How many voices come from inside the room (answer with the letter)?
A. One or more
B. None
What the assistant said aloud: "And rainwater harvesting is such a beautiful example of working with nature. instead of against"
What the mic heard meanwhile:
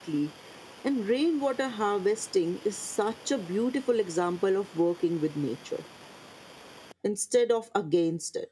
B